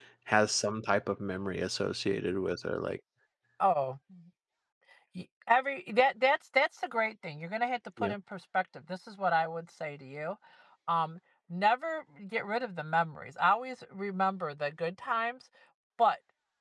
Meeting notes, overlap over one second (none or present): none